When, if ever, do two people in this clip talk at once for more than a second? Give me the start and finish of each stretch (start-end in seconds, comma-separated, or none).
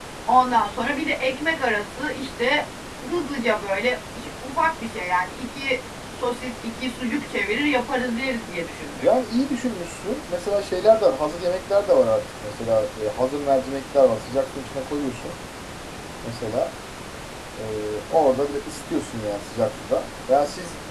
none